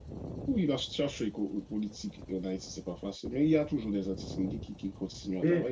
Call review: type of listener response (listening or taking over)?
taking over